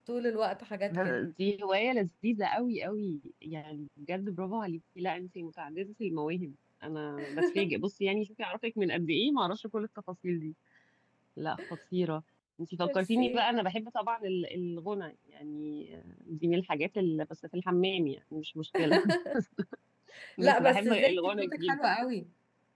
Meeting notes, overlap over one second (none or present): present